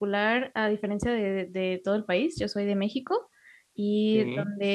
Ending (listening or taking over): listening